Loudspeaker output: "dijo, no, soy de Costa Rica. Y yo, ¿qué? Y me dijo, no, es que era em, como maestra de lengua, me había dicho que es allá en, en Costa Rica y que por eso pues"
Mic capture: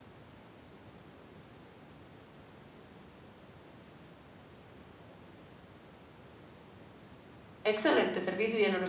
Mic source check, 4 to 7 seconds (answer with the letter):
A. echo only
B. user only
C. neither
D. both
C